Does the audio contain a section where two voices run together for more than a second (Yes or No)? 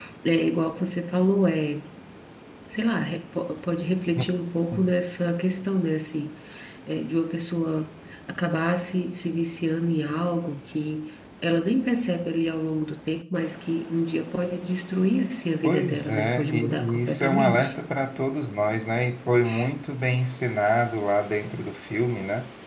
Yes